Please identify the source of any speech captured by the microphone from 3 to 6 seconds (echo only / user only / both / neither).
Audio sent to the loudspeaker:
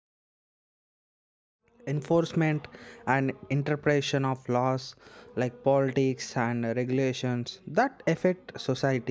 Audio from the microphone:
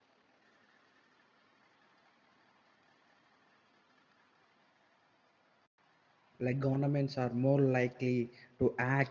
neither